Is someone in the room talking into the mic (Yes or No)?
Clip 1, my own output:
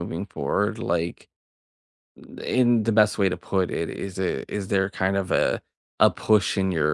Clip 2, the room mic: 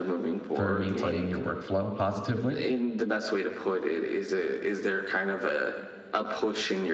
Yes